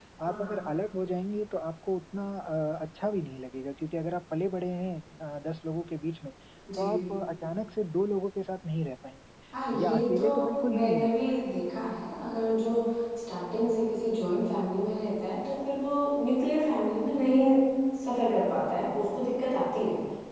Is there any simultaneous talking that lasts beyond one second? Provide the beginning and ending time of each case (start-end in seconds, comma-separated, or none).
9.8-11.3